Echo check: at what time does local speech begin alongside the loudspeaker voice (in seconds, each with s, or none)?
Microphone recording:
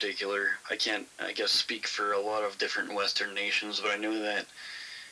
none